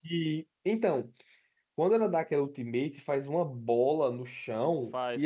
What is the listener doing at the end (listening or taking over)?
listening